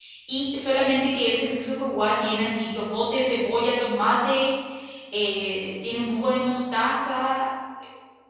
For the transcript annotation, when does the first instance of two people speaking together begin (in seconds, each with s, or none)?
none